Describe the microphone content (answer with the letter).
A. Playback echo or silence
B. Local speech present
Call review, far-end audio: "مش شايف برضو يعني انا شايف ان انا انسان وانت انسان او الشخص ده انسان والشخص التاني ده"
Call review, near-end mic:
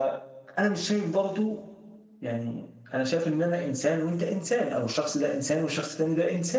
A